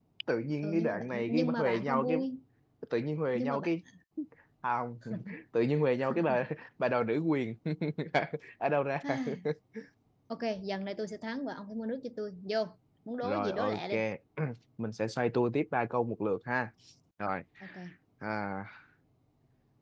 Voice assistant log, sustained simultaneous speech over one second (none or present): present